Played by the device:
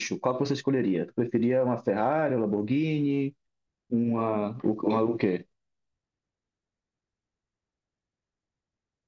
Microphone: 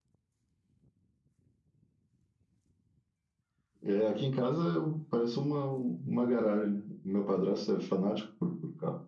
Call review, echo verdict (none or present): none